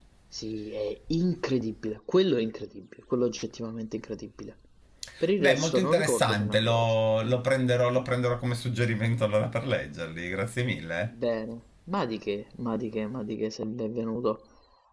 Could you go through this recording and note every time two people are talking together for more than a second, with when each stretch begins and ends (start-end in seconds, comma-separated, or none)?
5.4-6.8